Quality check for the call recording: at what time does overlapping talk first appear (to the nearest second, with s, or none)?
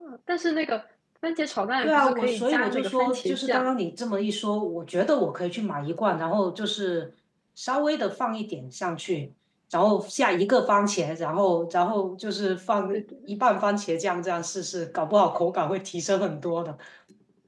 2 s